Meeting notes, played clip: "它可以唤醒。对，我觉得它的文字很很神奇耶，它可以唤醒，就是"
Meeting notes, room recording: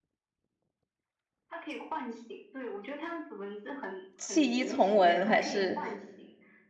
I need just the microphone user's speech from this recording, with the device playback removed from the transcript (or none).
弃医从文，还是